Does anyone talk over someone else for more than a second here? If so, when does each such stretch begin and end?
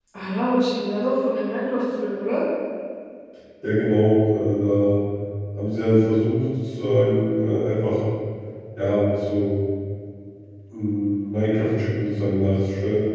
none

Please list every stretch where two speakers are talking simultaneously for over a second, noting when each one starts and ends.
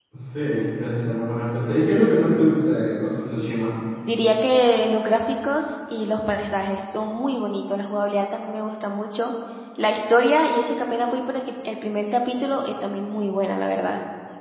none

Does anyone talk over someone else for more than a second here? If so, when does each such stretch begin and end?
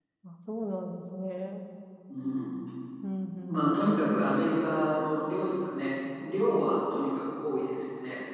none

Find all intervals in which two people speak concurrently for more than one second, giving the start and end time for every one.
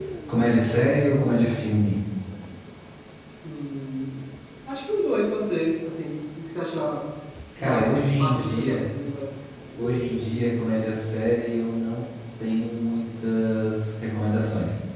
7.6-8.8

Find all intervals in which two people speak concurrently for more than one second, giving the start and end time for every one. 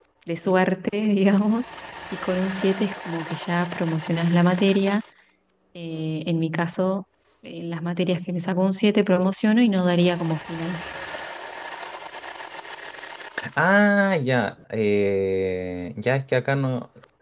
none

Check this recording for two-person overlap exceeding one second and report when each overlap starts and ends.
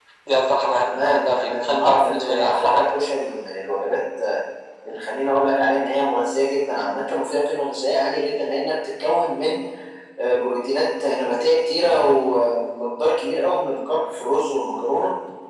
0.8-2.9

